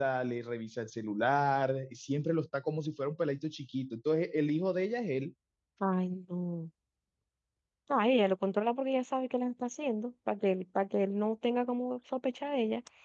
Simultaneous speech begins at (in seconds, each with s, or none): none